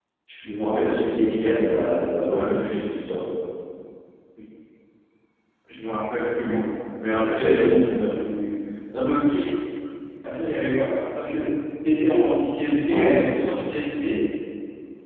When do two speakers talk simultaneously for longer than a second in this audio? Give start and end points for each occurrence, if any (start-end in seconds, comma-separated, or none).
none